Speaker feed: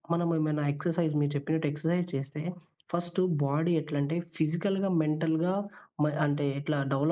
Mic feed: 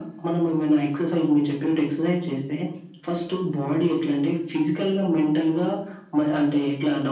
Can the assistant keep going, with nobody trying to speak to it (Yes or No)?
Yes